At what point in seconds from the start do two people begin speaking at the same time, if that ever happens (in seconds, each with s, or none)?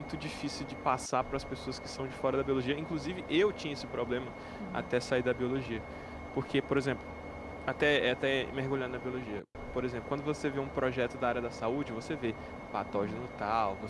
none